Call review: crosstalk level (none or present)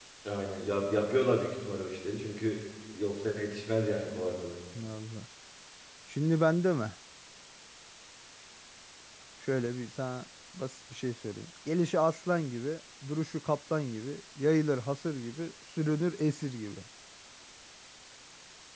none